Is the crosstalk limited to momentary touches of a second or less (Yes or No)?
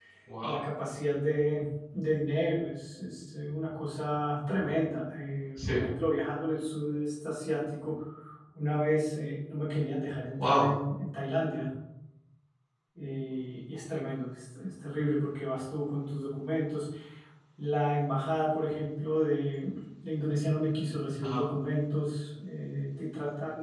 Yes